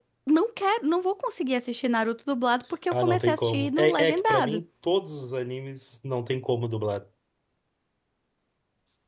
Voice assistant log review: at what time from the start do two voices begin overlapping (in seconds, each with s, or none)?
2.9 s